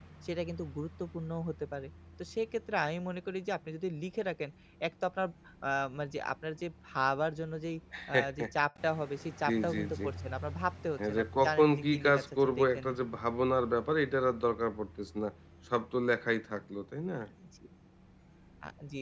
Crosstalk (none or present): present